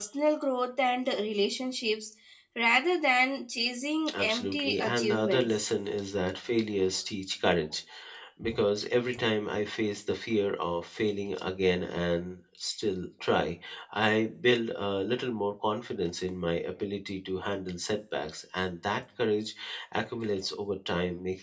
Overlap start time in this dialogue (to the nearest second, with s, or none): 4 s